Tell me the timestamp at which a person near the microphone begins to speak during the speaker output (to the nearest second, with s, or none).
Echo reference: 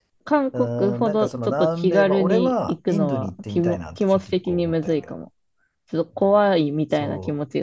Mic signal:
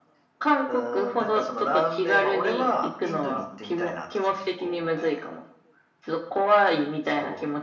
none